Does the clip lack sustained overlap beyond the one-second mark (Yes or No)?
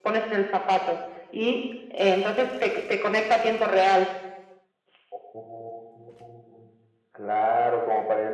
Yes